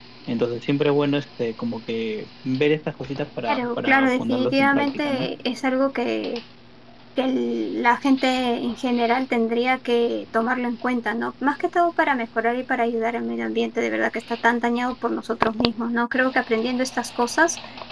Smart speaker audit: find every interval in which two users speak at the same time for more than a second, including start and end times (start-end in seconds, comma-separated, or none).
3.5-5.3